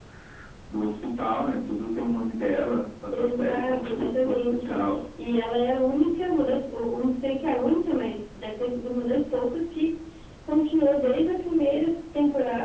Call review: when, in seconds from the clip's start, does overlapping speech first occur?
3 s

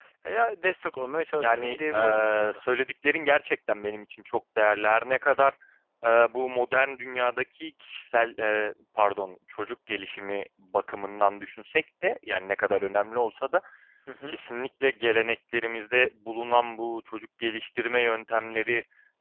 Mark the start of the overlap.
1 s

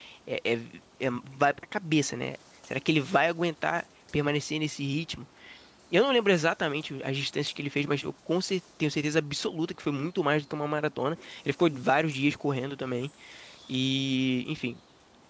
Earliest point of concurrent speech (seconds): none

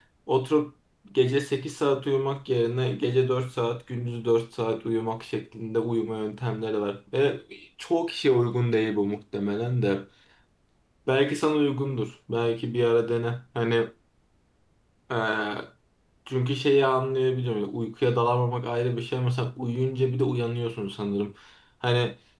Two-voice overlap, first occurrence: none

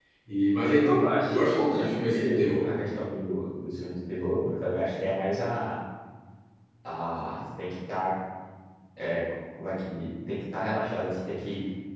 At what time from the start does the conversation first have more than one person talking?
1 s

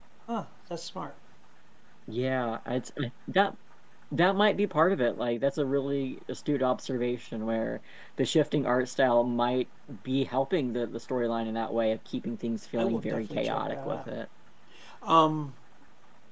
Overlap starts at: 13 s

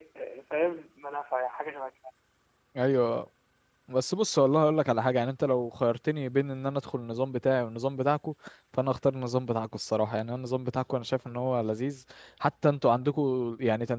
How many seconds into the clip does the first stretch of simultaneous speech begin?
none

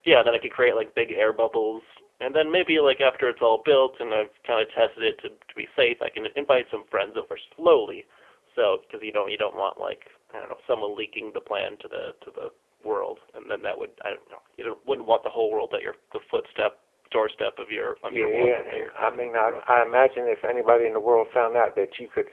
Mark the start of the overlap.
18 s

